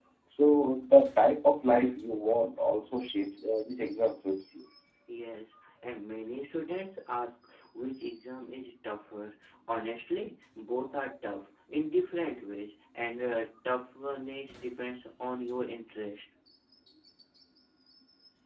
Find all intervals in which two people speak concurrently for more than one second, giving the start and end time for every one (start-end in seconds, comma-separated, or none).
none